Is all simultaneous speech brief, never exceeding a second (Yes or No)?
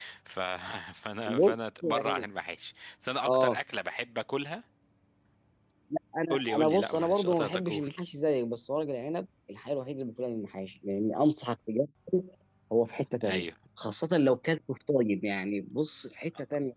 No